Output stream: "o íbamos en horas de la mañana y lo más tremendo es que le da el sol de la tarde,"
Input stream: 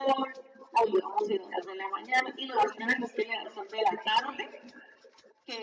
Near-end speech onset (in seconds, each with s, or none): none